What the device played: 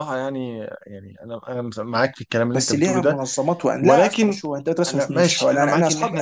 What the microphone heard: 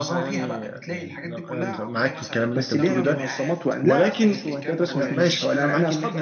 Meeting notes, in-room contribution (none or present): present